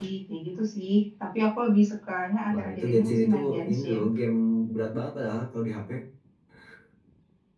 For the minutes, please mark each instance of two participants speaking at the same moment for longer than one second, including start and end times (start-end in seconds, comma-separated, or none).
2.5-4.0